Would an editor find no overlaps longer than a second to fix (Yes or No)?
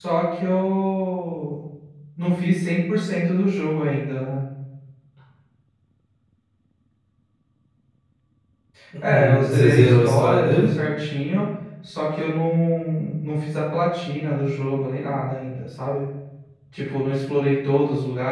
No